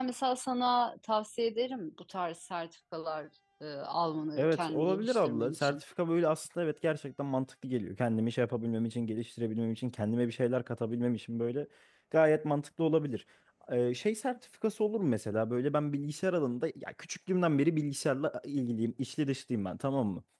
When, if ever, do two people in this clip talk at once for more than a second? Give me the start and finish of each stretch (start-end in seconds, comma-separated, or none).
4.4-5.8